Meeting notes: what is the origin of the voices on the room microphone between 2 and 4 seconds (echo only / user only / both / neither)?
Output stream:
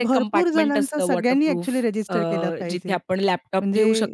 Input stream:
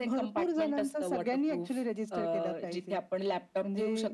echo only